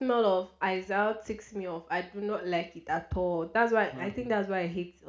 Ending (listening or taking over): listening